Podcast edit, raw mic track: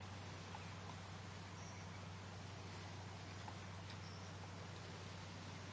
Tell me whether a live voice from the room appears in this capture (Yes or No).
No